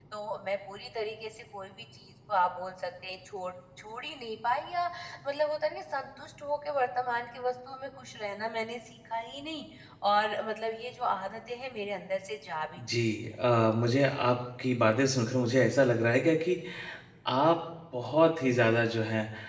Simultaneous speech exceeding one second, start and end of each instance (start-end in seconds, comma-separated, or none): none